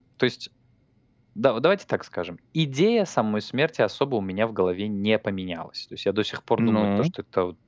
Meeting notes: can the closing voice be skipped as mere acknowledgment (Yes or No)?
Yes